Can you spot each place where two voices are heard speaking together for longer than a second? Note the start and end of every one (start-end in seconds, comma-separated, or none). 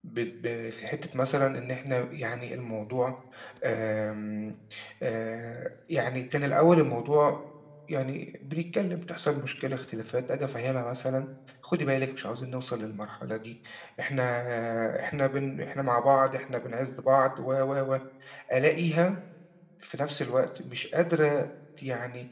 none